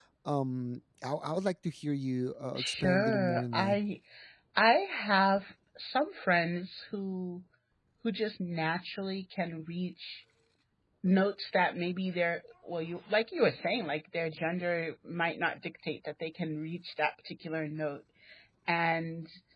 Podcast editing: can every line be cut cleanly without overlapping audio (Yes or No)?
No